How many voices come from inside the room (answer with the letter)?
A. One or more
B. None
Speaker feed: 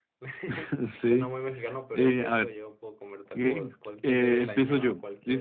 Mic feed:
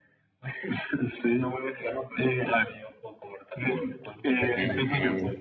A